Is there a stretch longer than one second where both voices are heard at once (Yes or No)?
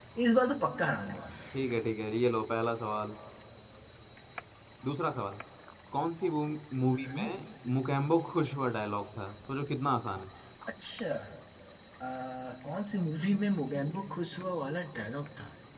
No